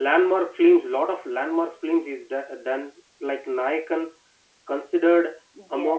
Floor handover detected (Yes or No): No